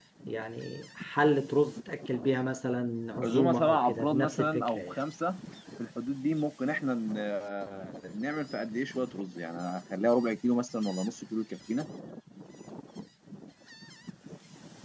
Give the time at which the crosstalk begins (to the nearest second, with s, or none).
3 s